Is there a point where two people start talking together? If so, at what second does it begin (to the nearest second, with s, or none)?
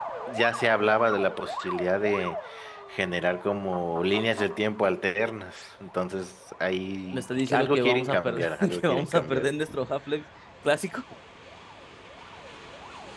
7 s